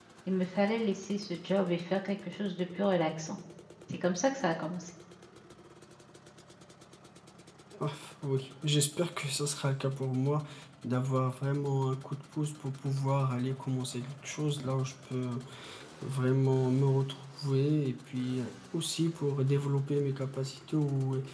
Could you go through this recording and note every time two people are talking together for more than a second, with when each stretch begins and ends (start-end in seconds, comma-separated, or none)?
none